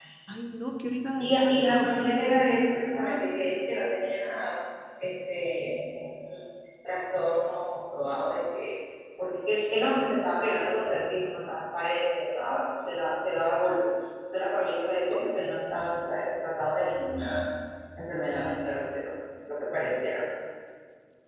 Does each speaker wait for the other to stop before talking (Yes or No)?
No